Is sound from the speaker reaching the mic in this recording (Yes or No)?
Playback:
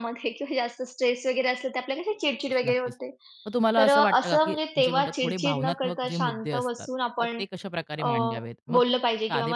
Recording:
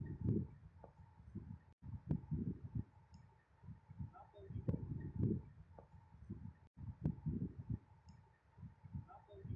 No